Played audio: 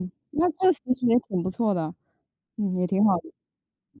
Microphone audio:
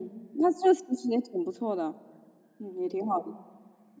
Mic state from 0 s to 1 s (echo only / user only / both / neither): echo only